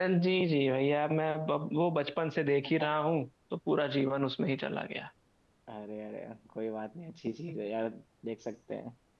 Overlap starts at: none

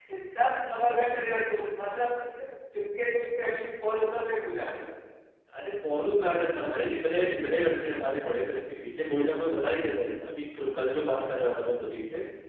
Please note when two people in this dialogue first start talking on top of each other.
none

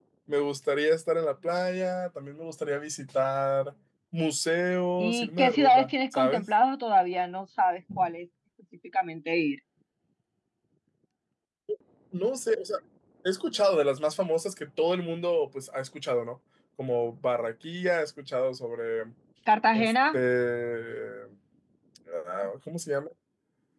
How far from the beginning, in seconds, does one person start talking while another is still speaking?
5.0 s

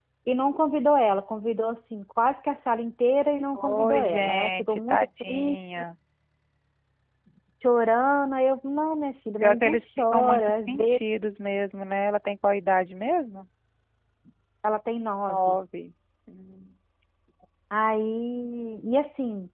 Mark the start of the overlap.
3.5 s

